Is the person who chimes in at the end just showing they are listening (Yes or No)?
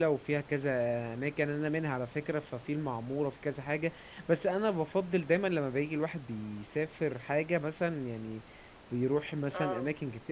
Yes